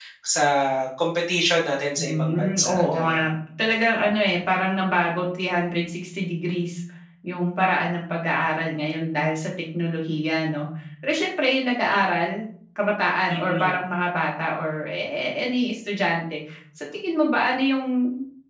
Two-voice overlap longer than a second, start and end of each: 2.0-3.2

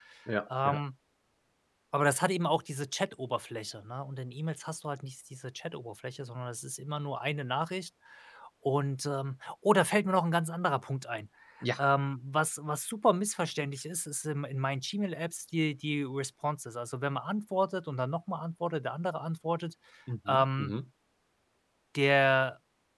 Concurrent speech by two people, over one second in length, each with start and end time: none

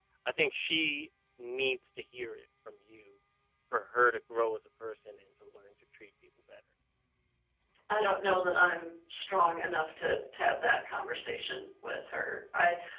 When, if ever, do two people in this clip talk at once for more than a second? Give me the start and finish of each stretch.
none

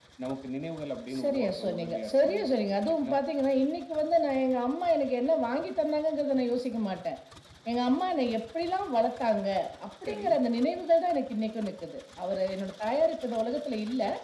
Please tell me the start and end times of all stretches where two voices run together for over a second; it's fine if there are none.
1.2-3.1

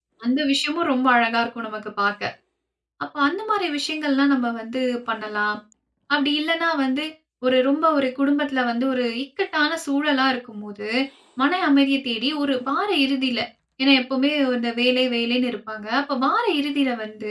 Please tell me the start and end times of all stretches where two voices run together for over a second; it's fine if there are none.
none

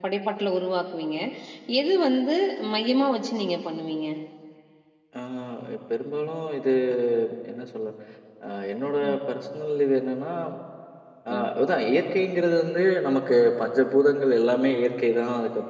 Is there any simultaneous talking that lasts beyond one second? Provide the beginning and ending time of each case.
none

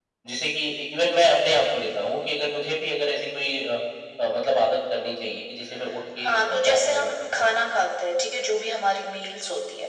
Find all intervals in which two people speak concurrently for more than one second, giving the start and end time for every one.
6.2-7.5

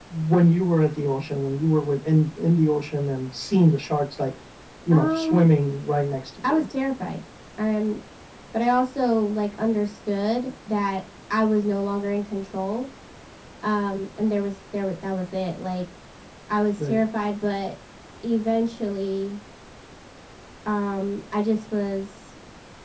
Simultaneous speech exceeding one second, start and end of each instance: none

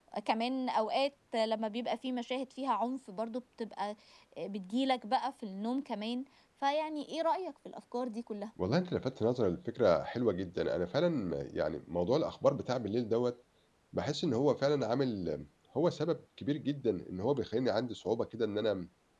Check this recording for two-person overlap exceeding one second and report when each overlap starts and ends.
none

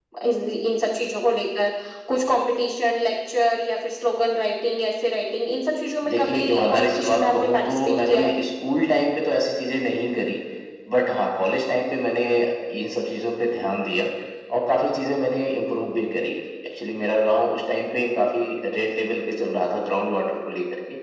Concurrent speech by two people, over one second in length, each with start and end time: 6.1-8.3

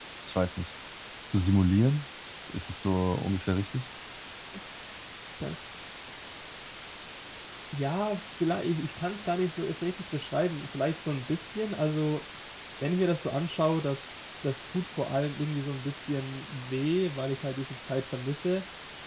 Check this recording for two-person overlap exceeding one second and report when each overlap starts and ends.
none

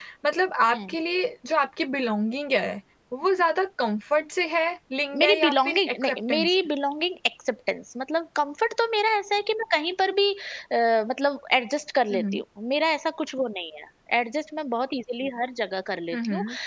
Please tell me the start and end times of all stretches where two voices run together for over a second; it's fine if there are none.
5.2-6.6

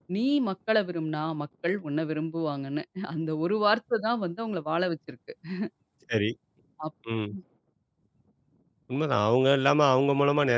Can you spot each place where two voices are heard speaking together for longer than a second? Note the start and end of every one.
none

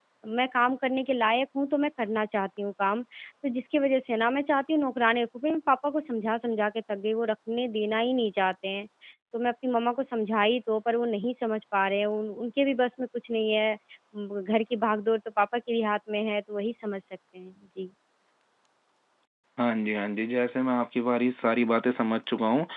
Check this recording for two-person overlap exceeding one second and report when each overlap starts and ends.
none

